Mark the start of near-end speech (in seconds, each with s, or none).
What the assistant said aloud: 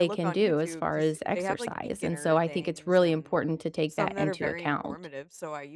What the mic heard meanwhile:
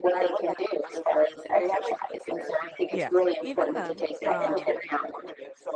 2.9 s